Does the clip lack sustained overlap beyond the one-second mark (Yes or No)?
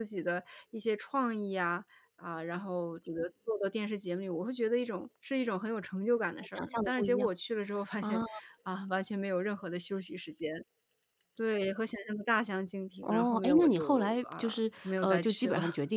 No